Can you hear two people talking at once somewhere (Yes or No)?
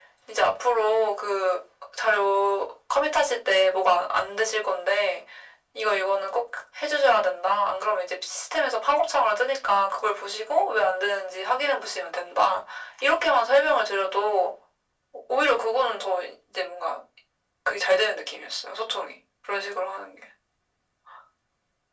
No